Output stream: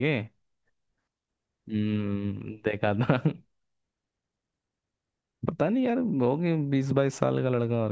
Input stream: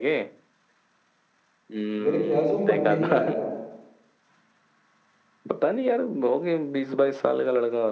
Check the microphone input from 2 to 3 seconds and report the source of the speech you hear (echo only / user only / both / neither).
both